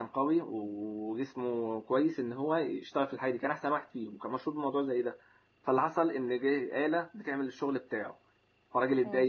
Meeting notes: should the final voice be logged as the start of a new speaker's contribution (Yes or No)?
No